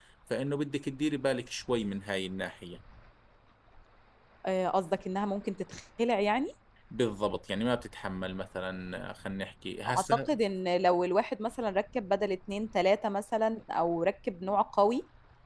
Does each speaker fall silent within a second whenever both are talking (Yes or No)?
Yes